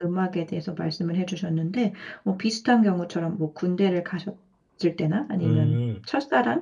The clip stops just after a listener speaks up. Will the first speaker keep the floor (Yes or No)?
Yes